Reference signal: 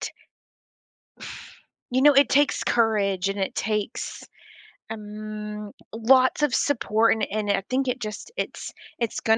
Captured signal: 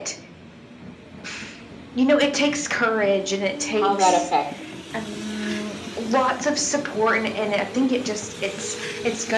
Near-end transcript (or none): how that affects